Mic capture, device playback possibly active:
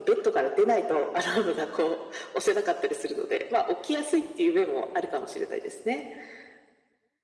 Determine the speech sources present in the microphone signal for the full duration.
echo only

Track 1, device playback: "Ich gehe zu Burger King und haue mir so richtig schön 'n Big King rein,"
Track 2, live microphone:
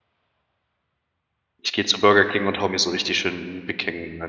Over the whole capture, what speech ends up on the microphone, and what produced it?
echo only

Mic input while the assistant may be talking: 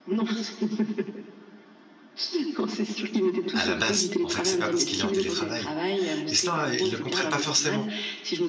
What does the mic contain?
both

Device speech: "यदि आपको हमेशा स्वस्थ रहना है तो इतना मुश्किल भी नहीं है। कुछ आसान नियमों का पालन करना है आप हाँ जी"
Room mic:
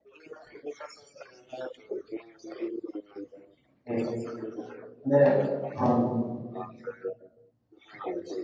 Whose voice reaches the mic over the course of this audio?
both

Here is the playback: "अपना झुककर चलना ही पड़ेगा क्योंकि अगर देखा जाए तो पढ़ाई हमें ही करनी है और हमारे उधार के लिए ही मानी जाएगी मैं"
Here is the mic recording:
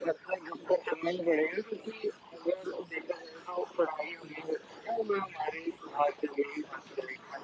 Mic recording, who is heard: echo only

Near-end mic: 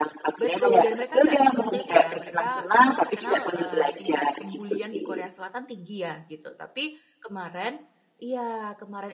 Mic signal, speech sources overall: both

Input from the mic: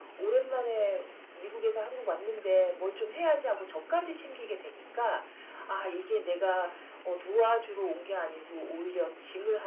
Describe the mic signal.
echo only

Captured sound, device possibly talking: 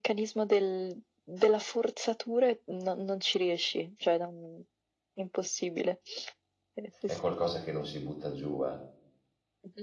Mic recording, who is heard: both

